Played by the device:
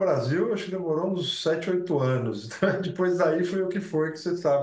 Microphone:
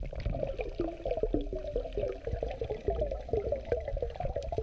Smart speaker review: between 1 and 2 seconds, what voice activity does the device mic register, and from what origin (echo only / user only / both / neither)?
neither